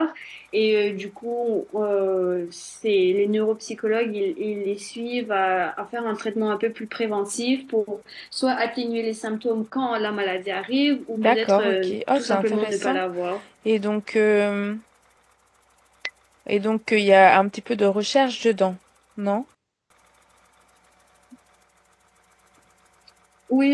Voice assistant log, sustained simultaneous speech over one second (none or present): present